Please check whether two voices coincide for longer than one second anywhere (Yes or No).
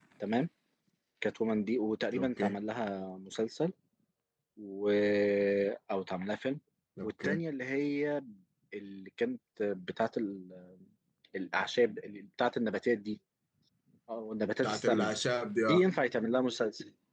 No